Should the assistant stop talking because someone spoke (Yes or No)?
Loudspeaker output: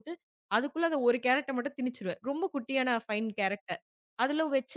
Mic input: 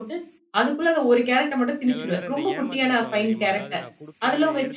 Yes